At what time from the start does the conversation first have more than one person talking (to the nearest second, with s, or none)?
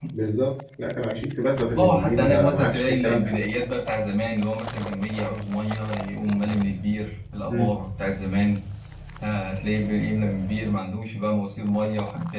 2 s